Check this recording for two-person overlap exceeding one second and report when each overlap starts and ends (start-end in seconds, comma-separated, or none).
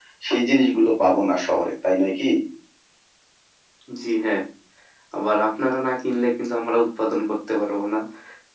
none